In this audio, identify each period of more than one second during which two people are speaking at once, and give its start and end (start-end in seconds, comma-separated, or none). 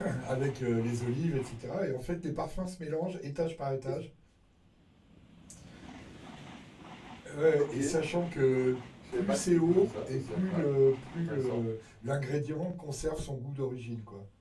9.1-10.7